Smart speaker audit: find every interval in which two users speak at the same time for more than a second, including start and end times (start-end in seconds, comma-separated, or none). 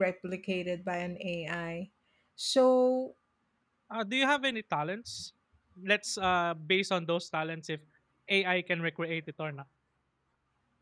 none